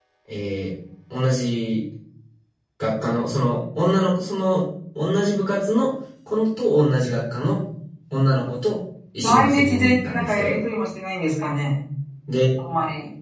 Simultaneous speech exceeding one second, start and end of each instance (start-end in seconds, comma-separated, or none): 9.2-10.5